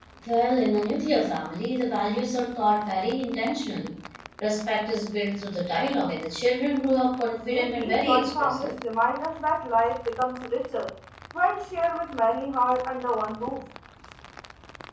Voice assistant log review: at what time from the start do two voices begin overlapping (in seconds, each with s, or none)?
7.4 s